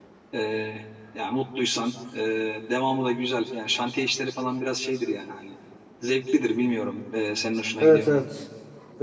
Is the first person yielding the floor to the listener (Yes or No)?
Yes